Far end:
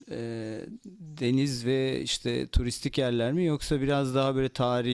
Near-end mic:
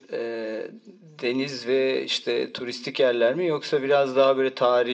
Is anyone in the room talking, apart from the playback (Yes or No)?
No